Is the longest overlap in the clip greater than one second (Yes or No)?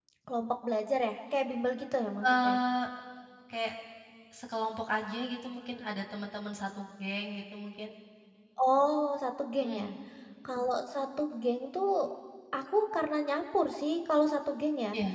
No